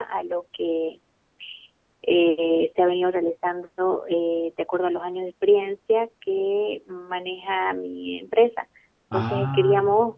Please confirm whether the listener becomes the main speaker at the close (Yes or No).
No